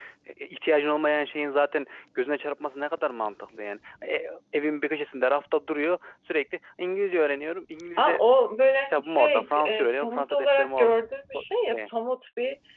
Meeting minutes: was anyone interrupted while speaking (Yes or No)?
Yes